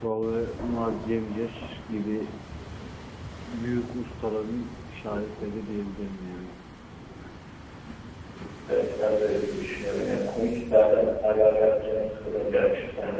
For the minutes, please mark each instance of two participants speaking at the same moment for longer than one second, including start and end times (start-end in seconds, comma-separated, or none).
none